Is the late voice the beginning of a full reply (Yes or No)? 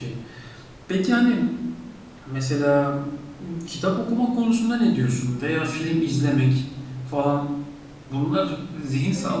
No